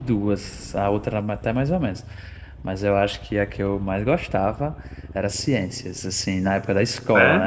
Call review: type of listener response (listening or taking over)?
listening